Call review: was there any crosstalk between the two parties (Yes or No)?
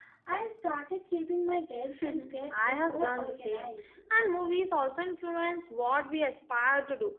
Yes